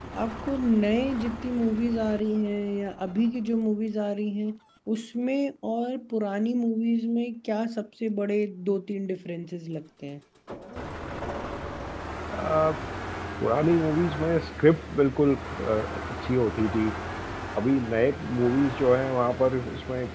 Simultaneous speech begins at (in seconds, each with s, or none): none